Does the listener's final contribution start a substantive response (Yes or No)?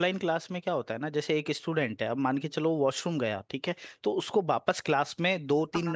No